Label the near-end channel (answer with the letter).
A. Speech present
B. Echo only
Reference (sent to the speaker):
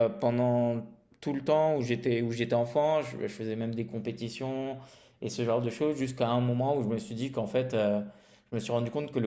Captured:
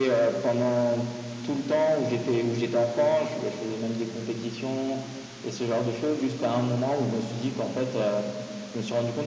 B